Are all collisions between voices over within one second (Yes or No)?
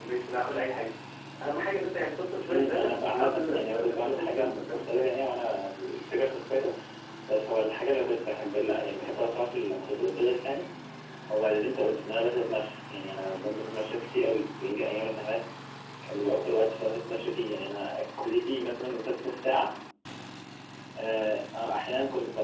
No